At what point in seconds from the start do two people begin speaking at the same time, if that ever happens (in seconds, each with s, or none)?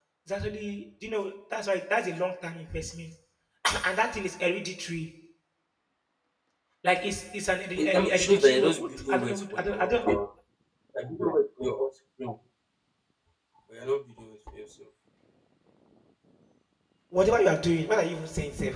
7.8 s